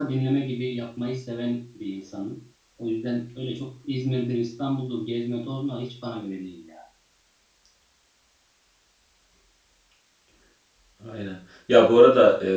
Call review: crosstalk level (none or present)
none